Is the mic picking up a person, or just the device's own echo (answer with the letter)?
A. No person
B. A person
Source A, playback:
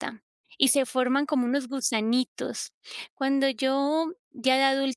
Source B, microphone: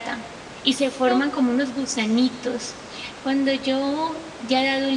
B